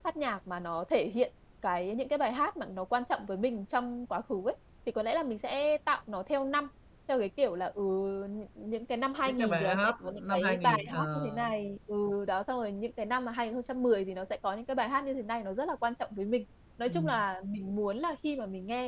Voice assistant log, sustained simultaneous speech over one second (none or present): present